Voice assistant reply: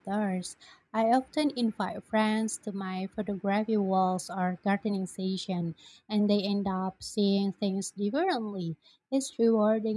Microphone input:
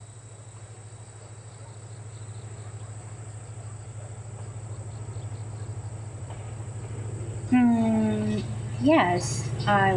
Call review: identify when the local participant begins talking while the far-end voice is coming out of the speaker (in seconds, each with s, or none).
7.5 s